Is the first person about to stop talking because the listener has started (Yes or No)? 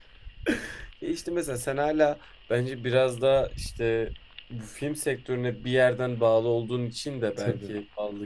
No